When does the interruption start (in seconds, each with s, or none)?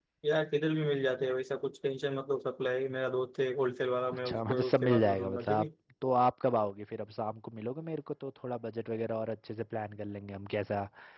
4.2 s